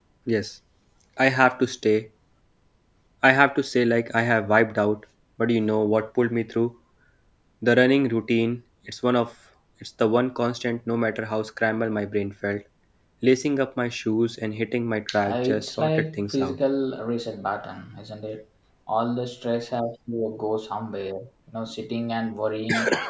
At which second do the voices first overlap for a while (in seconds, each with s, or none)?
15.1 s